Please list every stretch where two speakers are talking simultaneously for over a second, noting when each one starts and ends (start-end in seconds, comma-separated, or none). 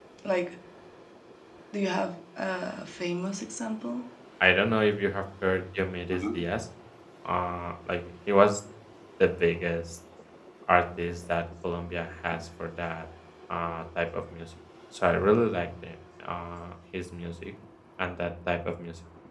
none